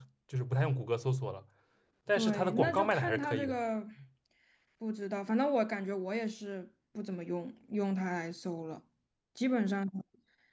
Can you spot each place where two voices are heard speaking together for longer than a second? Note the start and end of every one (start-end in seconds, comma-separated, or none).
2.2-3.6